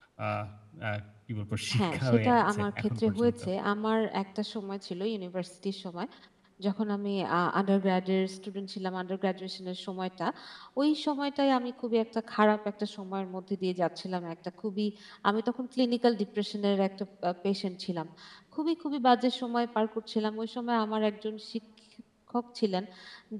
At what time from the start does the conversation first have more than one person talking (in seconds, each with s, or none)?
1.7 s